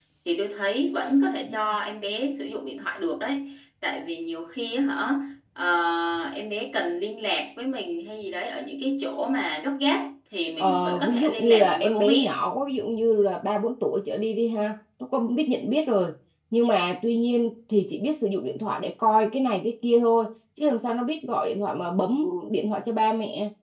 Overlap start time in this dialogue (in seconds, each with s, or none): 10.6 s